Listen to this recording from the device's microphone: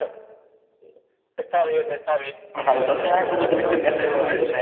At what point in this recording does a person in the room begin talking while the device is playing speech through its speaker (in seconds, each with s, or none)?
2.5 s